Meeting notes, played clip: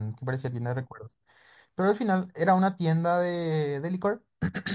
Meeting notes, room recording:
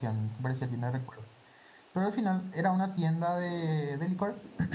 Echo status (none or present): present